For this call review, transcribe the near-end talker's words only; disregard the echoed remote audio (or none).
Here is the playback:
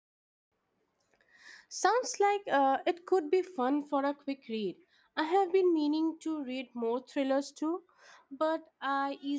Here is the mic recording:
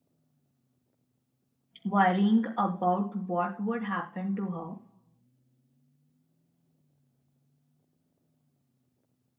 worrying about what would happen to her.